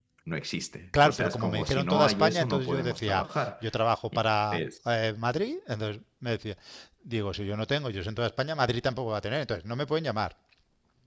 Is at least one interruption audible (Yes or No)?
Yes